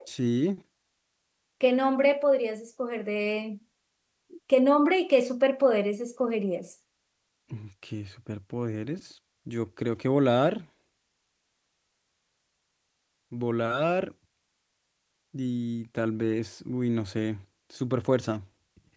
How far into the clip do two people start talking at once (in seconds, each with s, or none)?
none